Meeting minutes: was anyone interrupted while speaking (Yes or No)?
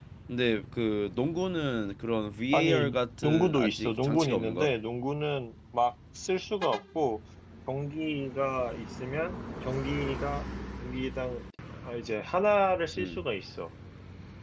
Yes